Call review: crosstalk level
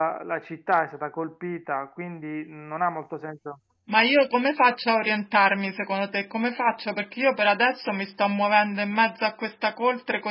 none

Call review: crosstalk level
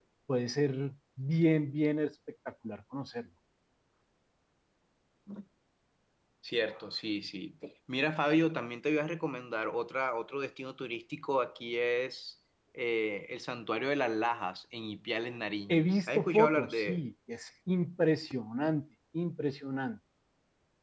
present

